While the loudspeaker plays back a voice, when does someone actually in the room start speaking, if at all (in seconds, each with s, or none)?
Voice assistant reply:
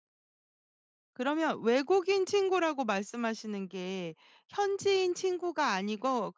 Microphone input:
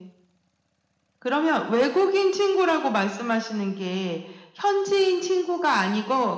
none